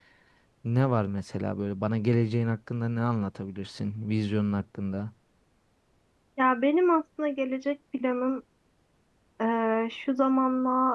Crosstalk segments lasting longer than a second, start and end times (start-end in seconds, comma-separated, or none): none